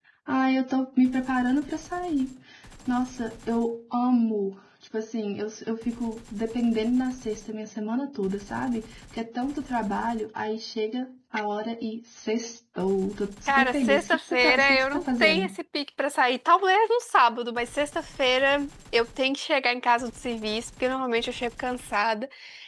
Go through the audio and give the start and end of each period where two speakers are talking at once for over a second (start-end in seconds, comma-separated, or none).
13.5-15.6